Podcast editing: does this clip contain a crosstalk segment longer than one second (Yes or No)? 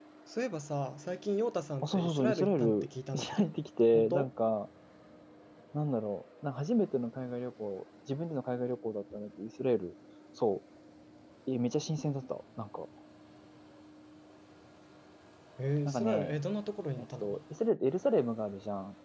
Yes